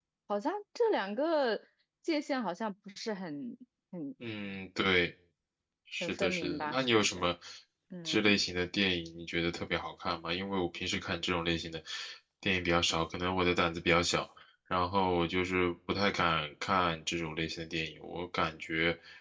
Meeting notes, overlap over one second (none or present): present